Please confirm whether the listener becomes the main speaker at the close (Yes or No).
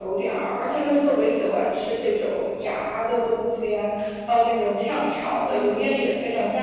No